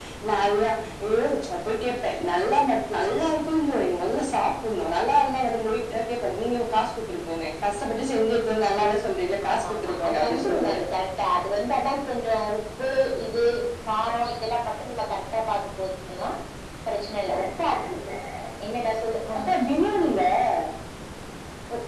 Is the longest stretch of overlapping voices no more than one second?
No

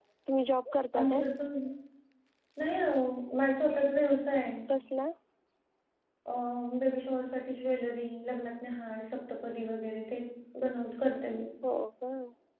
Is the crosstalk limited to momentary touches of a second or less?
Yes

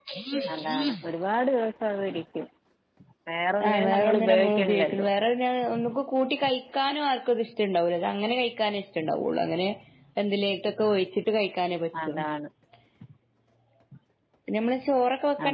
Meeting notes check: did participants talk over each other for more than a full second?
Yes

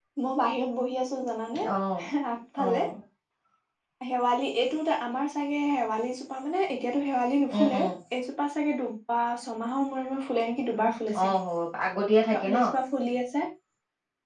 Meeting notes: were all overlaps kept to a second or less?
Yes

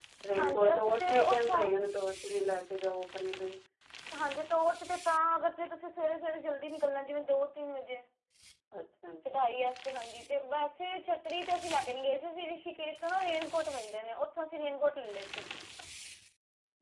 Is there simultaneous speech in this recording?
Yes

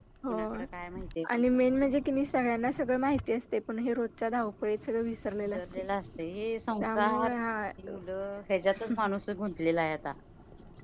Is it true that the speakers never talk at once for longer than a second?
Yes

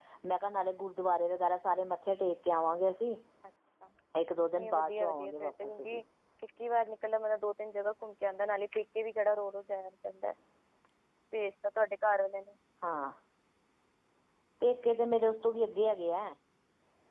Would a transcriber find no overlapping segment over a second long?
No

